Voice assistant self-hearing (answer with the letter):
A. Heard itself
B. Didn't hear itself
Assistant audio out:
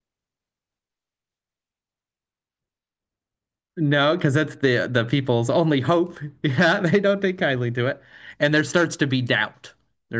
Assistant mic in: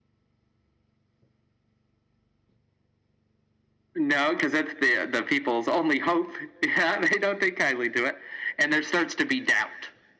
A